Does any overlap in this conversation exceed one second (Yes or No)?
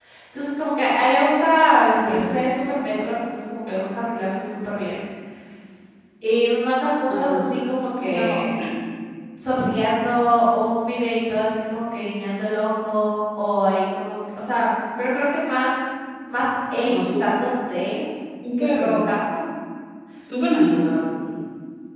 No